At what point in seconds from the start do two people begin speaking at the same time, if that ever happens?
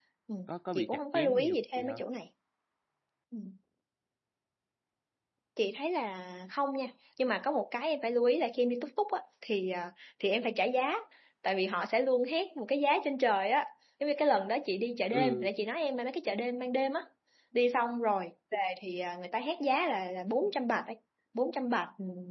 0.7 s

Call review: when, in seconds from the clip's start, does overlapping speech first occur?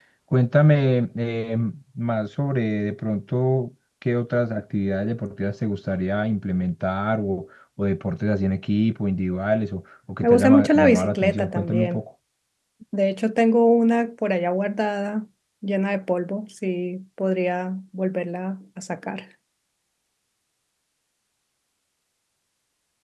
10.2 s

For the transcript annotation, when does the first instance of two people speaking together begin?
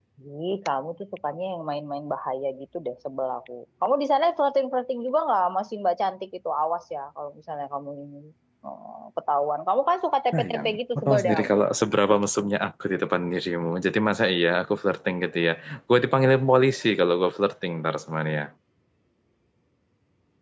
10.3 s

